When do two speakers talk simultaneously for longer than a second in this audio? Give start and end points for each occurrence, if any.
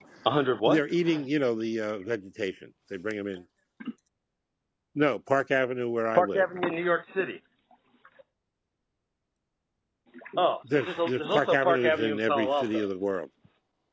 10.7-12.8

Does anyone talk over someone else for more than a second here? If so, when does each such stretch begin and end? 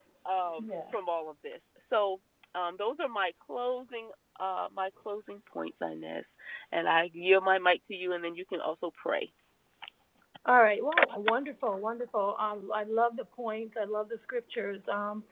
none

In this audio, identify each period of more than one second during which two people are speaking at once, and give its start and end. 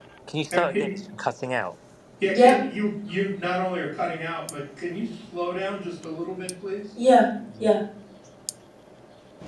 none

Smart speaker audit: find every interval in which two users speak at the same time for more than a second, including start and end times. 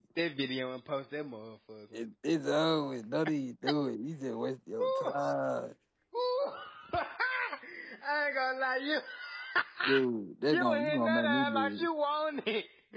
10.5-11.8

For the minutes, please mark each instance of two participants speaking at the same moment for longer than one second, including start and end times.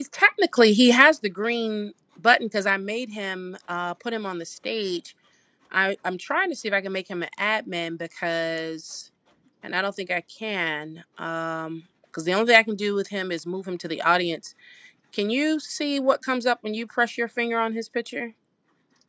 none

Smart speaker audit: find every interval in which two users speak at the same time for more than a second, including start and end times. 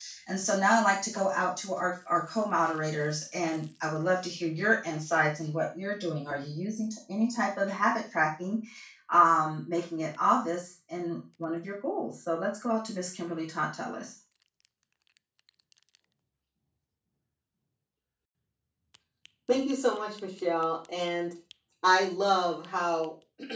none

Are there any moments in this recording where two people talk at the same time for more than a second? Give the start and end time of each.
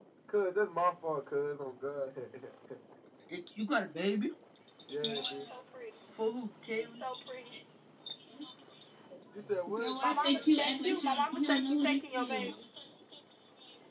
9.4-12.5

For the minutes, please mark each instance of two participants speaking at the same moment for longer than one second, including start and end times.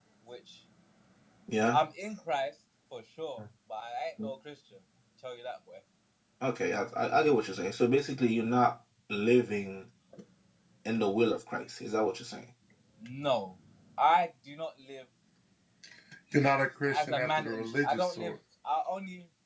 16.9-18.3

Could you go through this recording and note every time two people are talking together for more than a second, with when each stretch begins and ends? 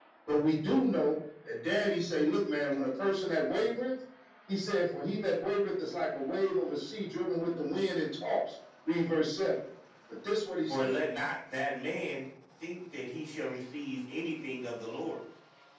none

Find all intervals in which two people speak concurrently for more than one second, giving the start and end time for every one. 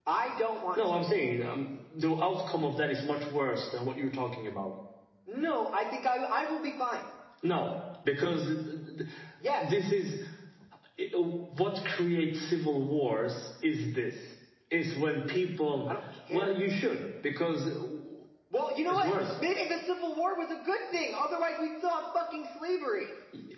none

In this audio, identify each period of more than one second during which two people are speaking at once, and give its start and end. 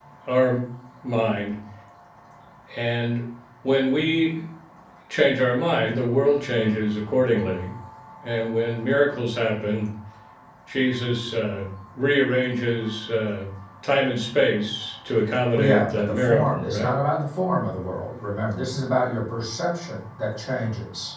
15.5-16.9

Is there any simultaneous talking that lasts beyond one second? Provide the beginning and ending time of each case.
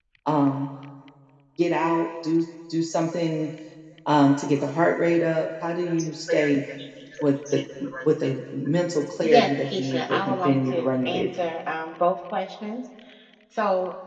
9.2-11.3

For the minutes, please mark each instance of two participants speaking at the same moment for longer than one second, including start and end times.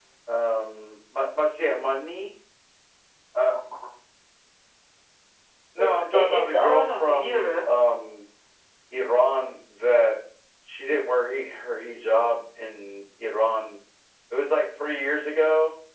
5.8-7.5

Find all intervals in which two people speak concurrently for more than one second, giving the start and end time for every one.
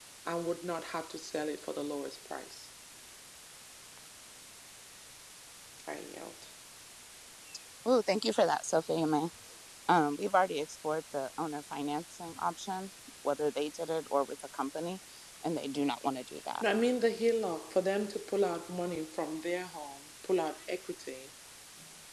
none

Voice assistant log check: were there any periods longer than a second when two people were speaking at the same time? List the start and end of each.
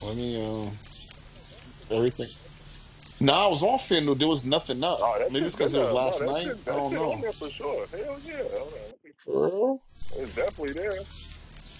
5.3-7.2

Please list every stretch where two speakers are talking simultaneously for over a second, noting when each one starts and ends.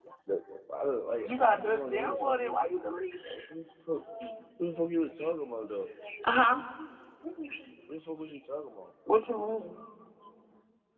1.2-2.5

